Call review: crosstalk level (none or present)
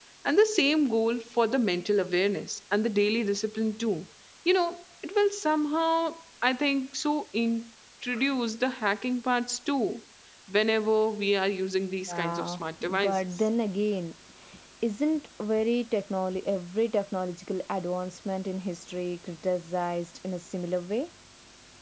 present